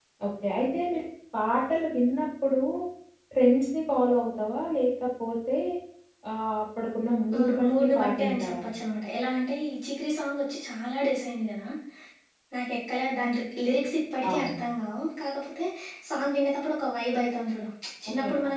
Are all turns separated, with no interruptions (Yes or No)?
No